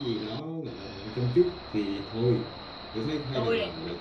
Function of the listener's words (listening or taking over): listening